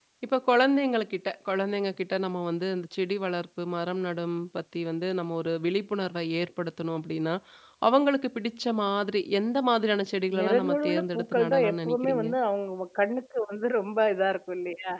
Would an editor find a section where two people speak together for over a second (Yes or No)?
Yes